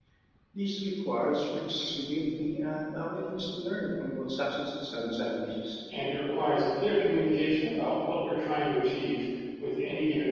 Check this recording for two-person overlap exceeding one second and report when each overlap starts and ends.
none

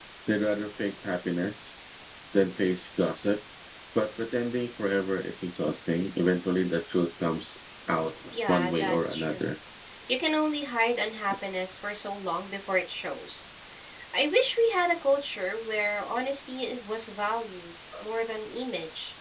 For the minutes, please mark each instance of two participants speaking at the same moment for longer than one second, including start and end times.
8.3-9.5

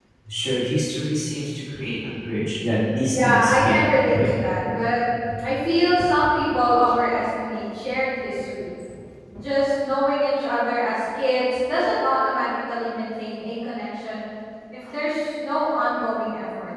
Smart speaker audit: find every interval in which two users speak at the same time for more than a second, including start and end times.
3.1-4.3

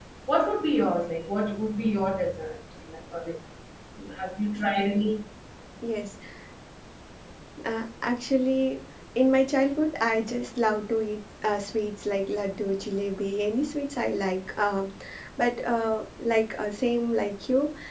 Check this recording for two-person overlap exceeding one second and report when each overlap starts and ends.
none

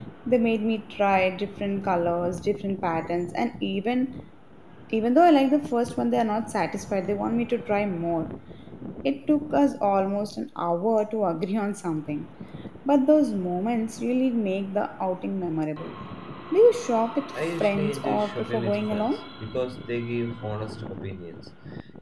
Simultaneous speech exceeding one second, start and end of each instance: 17.4-19.2

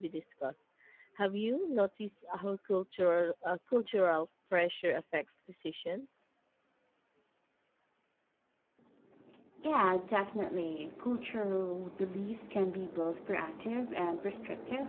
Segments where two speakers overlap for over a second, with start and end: none

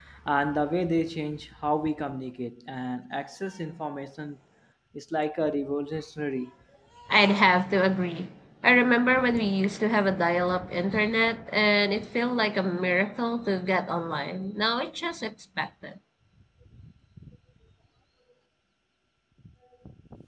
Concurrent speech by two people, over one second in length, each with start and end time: none

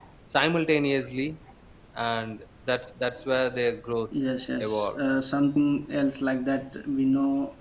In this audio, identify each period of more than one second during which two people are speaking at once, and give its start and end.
none

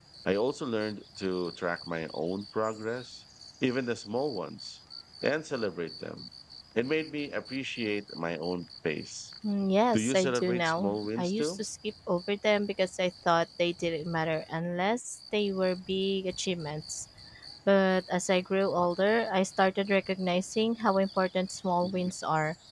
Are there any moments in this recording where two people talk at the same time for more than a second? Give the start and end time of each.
9.9-11.6

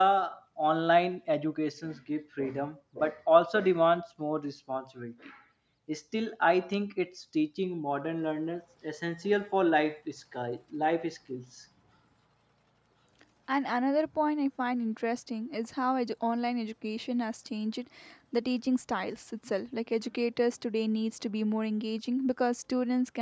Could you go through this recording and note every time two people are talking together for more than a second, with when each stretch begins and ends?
none

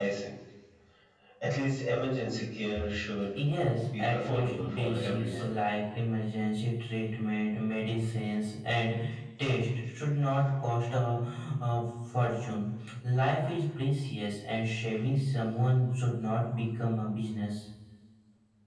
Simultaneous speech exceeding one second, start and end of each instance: 4.0-5.5

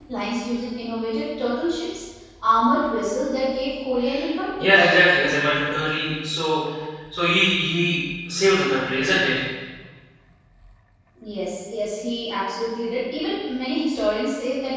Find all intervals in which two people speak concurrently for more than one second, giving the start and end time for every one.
none

